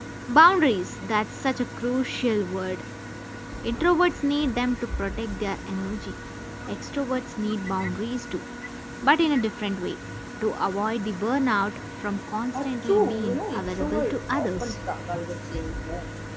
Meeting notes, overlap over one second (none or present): present